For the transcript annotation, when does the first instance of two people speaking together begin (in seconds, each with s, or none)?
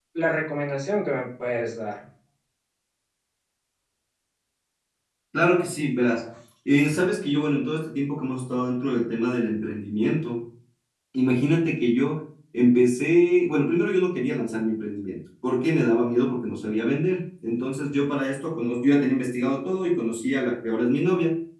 none